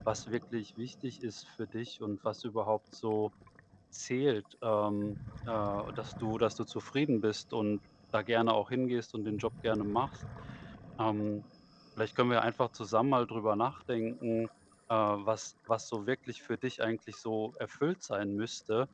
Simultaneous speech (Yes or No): No